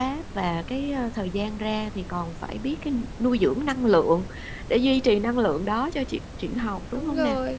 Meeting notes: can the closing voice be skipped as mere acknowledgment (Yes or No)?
No